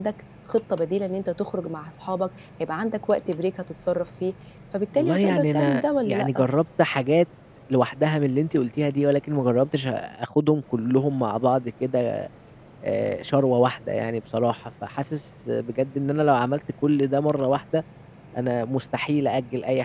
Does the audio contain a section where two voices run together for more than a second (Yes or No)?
Yes